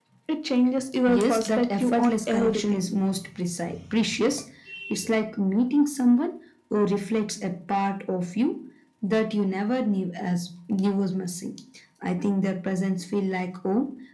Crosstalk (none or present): present